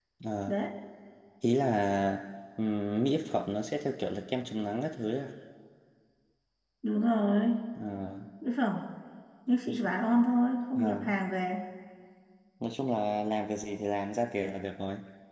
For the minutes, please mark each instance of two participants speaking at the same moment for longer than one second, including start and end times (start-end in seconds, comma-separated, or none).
none